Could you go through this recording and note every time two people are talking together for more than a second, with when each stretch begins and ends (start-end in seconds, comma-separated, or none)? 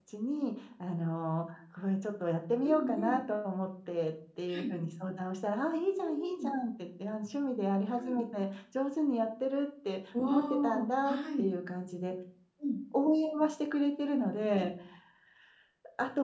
10.2-11.5